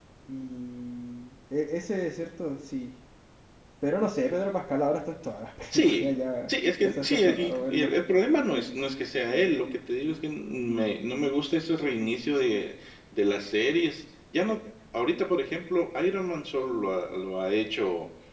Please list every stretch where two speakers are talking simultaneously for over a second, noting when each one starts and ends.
6.5-7.9

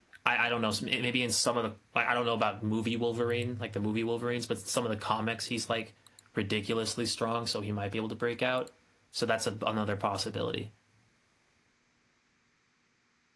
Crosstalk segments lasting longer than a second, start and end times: none

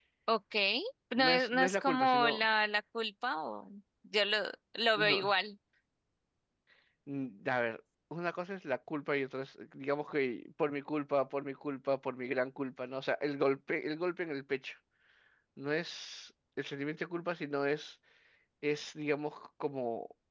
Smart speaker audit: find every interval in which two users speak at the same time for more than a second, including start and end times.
1.2-2.5

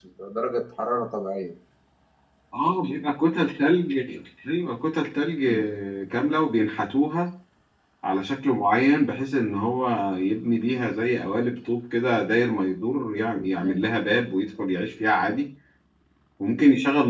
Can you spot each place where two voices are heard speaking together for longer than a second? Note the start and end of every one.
none

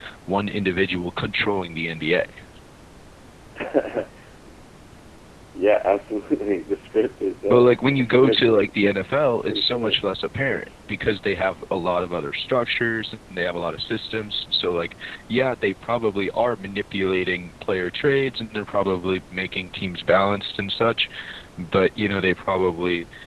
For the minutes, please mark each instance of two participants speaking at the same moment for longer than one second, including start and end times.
7.5-8.7

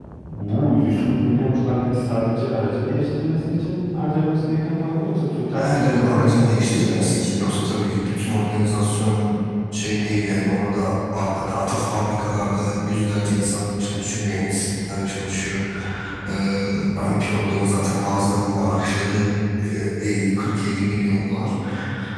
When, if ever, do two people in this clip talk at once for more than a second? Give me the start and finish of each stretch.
5.5-7.5

